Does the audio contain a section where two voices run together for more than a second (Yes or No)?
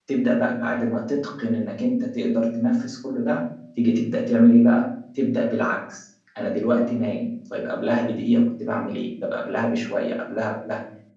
No